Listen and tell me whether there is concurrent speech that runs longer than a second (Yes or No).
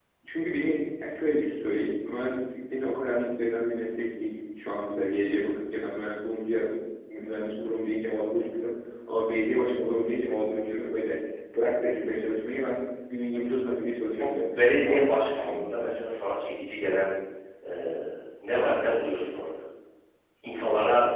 Yes